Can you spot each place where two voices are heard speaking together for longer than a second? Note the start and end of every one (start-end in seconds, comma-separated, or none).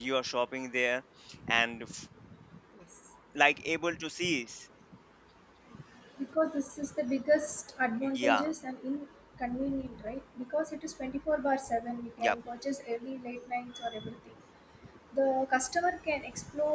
none